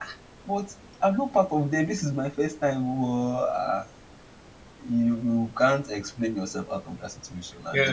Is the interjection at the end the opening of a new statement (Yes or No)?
Yes